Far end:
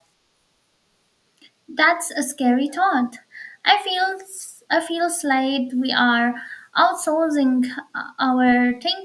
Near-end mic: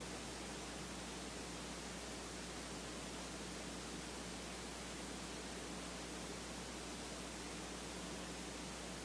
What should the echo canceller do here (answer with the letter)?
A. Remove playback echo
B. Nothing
B